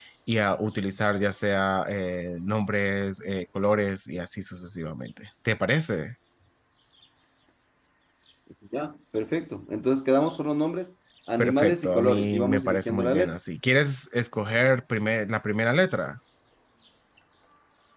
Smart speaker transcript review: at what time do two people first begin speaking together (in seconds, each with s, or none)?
11.4 s